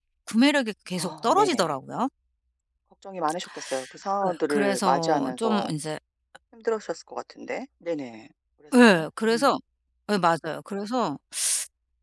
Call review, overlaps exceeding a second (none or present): present